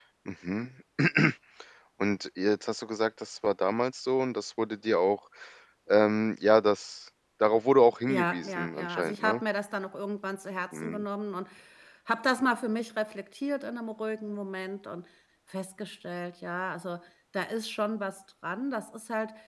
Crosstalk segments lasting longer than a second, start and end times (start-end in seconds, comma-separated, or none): 8.1-9.4